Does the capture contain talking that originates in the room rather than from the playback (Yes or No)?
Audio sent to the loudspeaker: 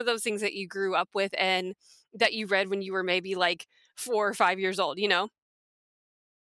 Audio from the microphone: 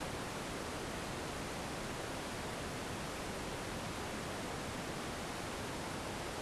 No